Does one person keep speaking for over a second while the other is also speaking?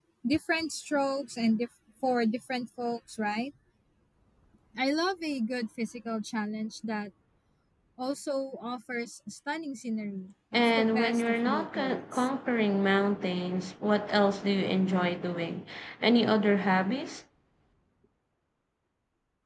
Yes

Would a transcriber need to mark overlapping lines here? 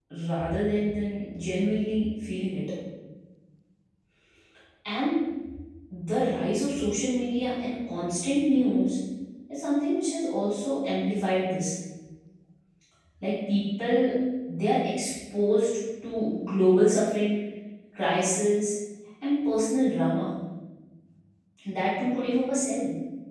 No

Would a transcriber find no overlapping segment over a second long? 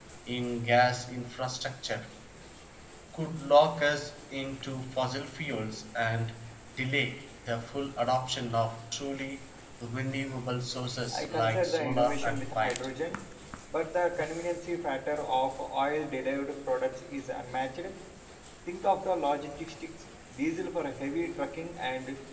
No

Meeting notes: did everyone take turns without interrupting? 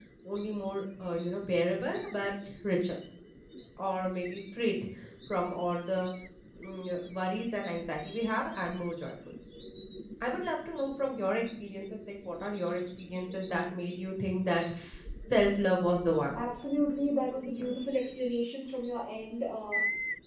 Yes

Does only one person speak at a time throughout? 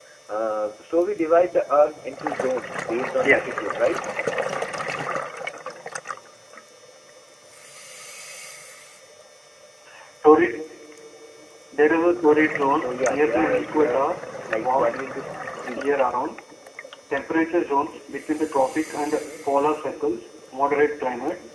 No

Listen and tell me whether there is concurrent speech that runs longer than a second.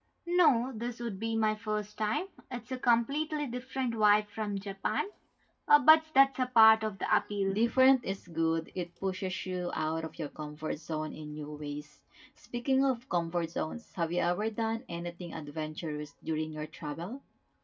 No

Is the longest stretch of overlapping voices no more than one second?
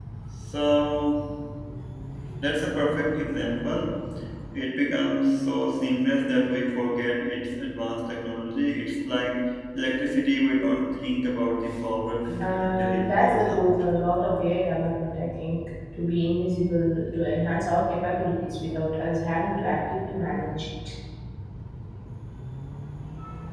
No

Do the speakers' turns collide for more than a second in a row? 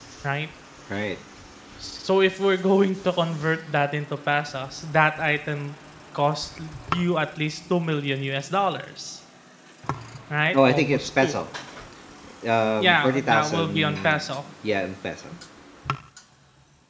Yes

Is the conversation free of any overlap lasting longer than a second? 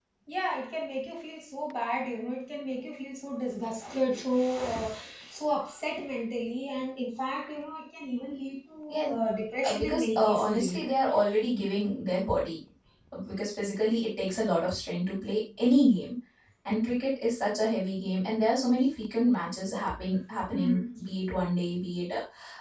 No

